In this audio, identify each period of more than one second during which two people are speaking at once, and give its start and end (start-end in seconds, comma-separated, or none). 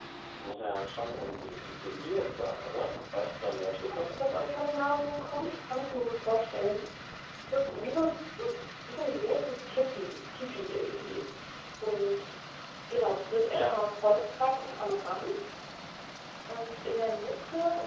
none